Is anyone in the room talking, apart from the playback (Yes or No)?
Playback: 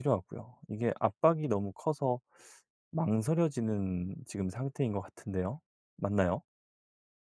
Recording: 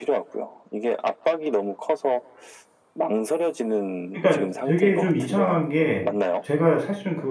Yes